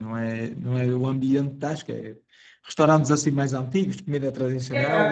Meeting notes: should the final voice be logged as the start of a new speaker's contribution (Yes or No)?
Yes